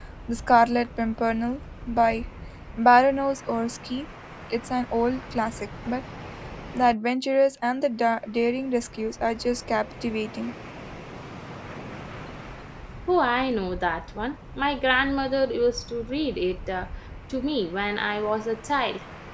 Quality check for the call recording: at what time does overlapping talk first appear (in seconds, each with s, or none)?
none